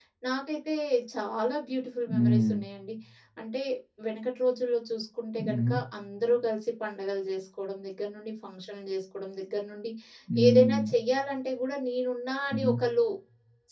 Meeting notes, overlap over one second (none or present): none